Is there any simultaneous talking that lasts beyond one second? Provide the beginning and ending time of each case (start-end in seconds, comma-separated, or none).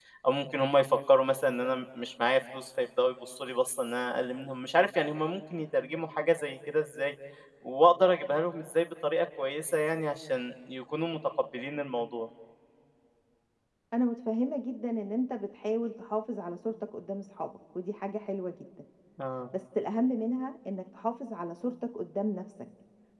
none